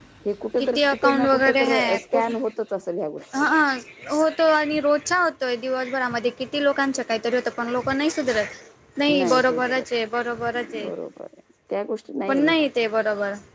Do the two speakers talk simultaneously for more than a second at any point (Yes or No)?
Yes